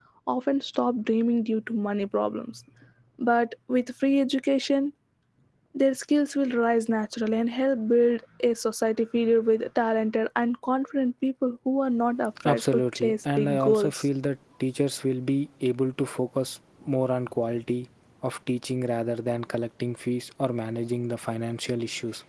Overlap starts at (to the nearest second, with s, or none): 12 s